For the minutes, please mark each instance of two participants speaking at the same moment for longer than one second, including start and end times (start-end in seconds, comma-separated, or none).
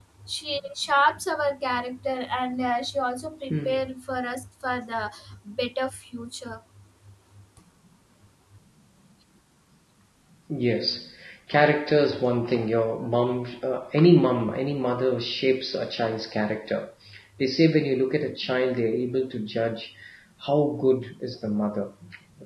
none